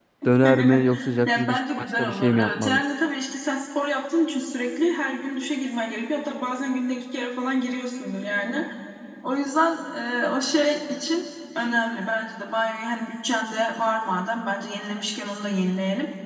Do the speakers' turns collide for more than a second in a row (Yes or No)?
Yes